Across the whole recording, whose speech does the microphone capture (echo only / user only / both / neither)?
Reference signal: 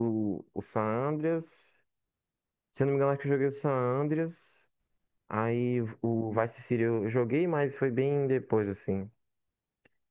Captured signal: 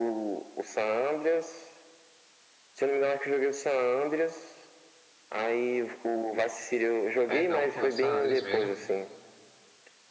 both